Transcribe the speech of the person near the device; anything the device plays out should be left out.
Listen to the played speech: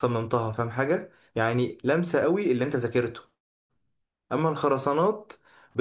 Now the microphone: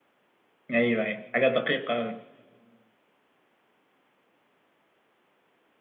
ايوه ايوه حاجة دقيقة أوي

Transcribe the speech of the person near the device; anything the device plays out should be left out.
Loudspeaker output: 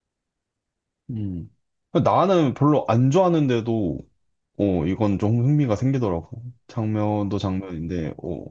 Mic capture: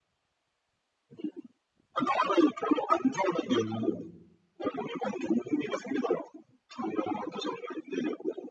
음.

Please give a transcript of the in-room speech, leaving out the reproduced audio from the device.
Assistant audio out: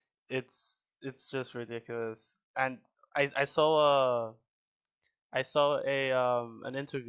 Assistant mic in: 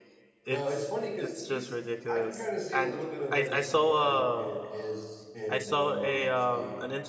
No, it's funny because he's I can kind of see a little bit of like a similarity in his in Dwayne Wade's game.

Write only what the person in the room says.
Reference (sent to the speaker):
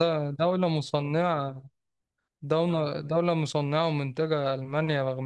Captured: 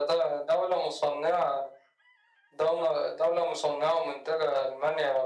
none

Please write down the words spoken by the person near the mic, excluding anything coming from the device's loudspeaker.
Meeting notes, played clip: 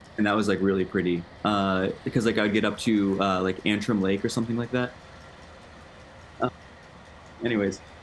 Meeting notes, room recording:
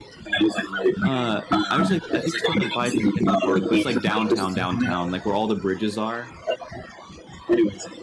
Uh, I was like, I think it's called like Bicentennial Park, but it's like downtown, downtown, like where all the bridges are.

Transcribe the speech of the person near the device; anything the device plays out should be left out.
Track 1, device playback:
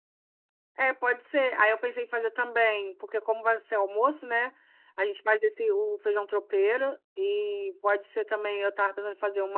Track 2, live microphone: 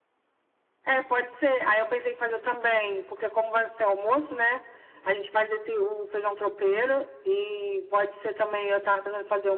none

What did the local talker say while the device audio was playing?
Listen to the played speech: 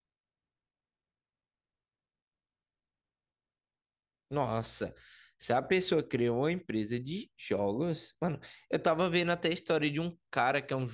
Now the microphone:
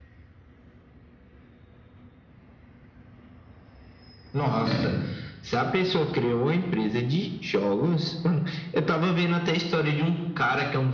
É.

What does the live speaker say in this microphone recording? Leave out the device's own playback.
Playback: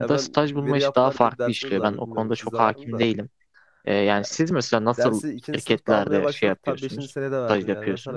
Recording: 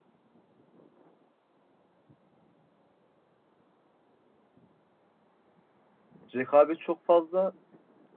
rekabet çok fazla

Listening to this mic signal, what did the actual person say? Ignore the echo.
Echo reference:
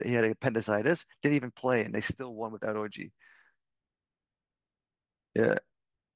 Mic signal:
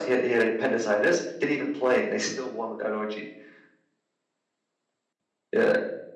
none

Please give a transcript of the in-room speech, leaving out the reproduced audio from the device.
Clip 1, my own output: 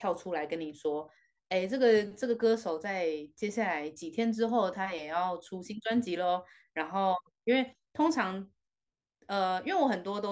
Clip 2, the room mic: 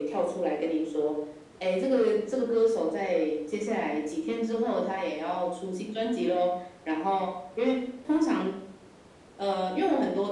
none

